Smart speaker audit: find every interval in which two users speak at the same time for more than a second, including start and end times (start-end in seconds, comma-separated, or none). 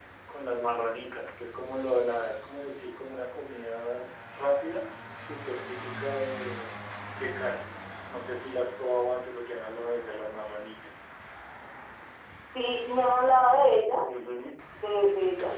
none